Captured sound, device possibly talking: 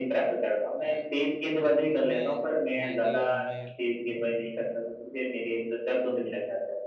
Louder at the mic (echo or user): echo